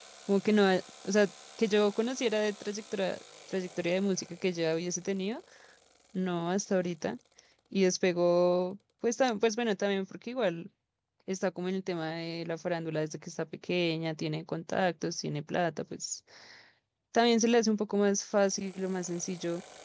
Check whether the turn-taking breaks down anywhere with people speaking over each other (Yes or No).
No